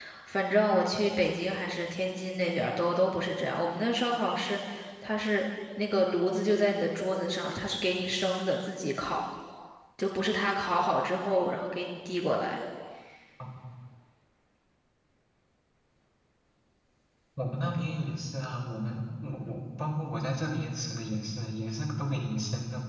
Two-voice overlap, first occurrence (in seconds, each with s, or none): none